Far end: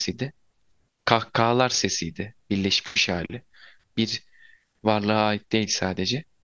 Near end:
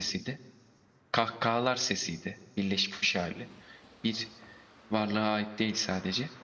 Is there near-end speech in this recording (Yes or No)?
No